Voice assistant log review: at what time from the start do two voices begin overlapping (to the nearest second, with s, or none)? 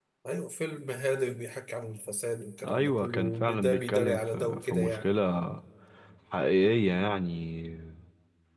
3 s